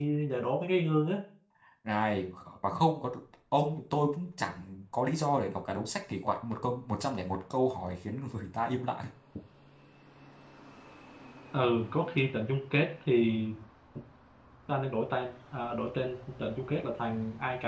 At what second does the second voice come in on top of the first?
none

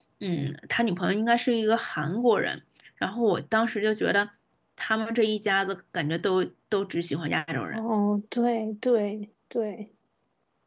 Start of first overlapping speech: none

